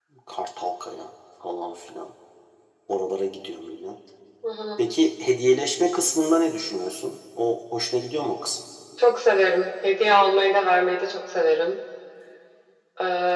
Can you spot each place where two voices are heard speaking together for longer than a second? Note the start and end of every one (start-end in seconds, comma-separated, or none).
none